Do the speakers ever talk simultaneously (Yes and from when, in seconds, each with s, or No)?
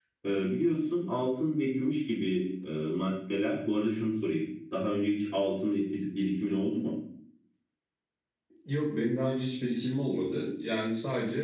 No